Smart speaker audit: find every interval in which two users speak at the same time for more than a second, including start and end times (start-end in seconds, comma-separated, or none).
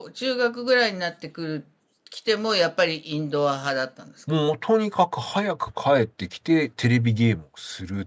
none